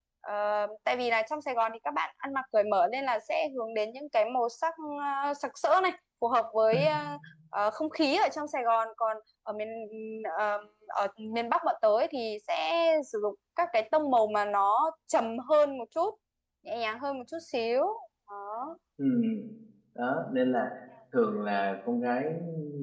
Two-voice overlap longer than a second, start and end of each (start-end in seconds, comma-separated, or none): none